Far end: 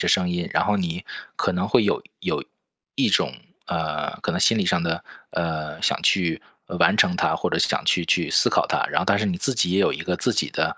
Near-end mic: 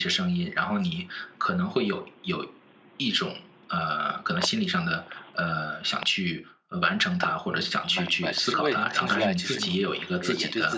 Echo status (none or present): present